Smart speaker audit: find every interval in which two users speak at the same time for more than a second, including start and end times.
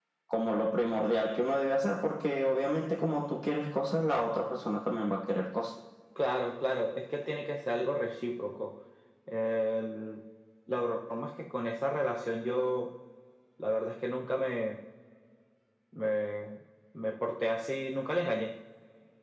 none

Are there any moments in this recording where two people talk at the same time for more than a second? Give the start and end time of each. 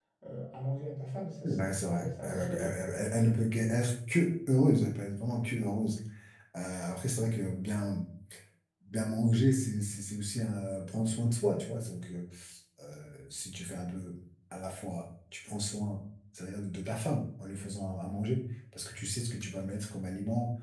1.4-3.0

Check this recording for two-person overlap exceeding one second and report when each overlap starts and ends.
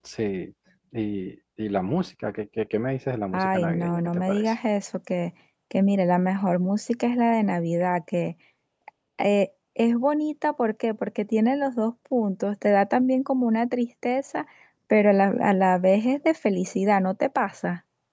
3.3-4.5

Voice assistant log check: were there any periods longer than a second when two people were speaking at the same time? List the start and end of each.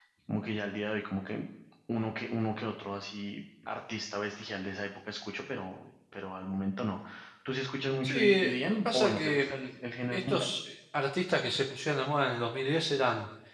8.0-9.5

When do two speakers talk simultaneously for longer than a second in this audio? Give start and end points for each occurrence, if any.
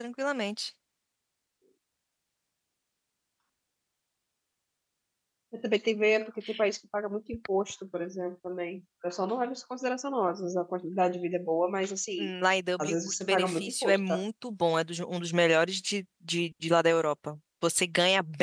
12.8-14.2

